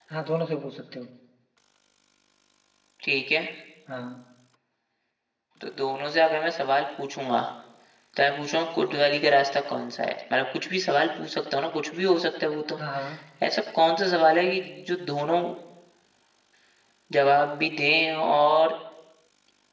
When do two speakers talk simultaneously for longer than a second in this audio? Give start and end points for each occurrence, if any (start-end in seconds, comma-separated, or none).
none